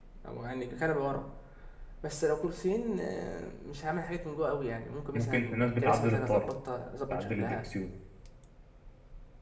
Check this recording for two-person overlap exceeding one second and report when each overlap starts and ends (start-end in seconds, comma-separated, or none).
5.1-6.5